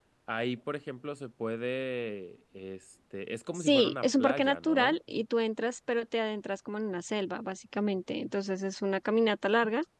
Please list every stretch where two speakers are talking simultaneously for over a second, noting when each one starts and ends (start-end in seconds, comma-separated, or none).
3.5-5.0